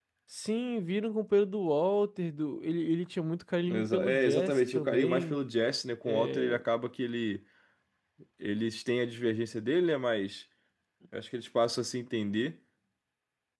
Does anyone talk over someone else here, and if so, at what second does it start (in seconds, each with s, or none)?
3.7 s